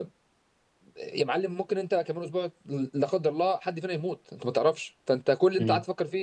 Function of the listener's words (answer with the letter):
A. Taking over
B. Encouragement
B